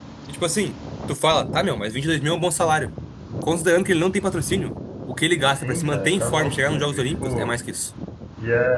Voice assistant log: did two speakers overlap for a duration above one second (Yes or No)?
Yes